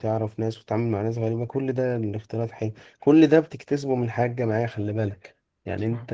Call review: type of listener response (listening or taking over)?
listening